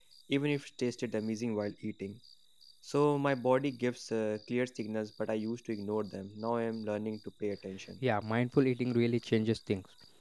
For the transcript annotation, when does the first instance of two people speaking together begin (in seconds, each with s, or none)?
none